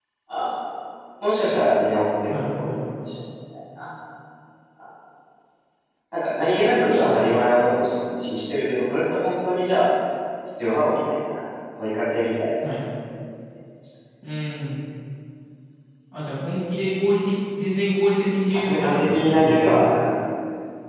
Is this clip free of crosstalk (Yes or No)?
No